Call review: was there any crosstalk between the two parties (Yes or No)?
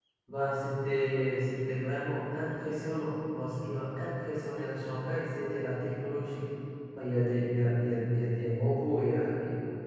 No